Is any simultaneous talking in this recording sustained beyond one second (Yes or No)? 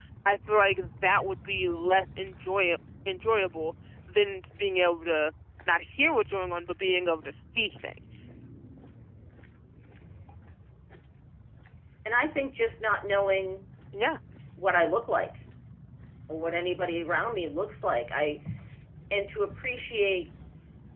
No